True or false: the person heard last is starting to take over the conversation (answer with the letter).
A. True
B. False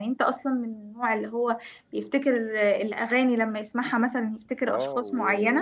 A